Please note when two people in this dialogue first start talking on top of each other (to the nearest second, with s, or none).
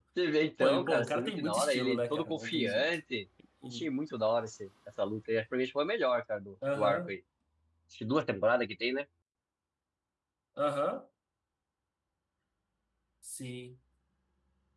1 s